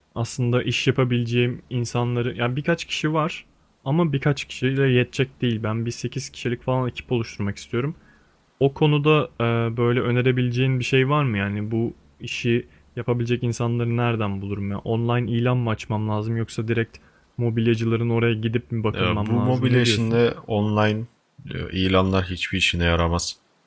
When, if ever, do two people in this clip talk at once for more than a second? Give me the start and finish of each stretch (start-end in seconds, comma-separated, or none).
18.9-20.2